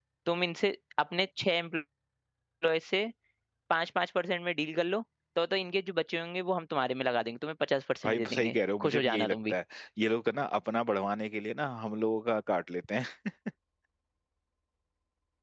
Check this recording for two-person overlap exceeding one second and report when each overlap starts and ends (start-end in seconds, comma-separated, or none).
8.0-9.5